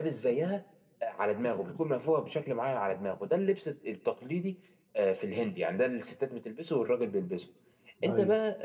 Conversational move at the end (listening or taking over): listening